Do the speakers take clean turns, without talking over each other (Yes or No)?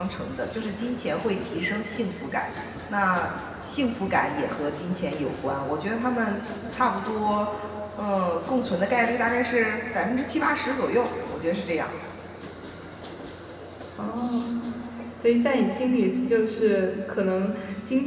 Yes